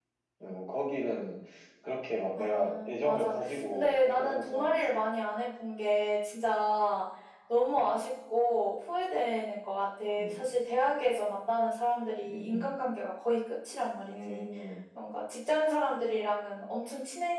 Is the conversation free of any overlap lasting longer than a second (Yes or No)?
No